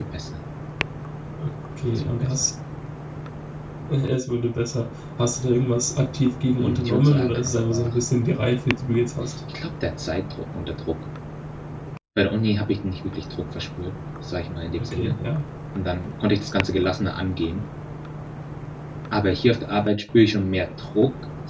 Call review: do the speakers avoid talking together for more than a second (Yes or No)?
No